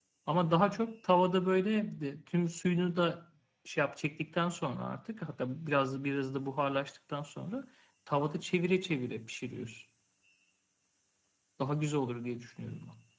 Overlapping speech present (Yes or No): No